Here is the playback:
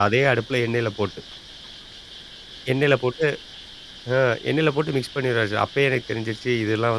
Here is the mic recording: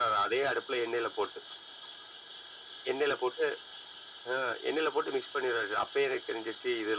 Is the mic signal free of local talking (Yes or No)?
Yes